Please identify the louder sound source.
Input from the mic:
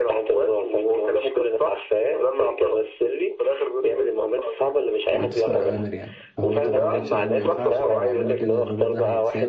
echo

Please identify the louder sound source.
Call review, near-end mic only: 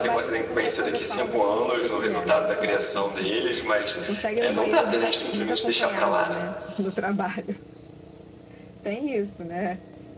echo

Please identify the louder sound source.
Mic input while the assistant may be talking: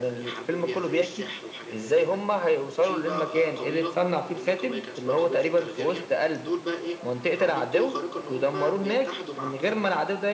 echo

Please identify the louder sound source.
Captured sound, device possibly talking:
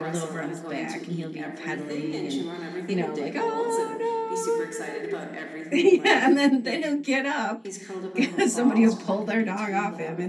user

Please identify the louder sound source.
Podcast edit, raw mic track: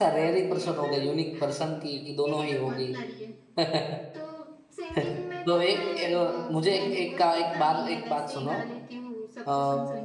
user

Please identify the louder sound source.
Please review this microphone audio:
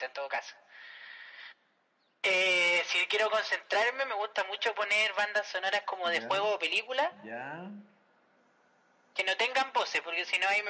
echo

